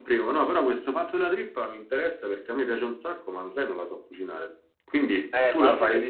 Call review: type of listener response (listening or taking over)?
taking over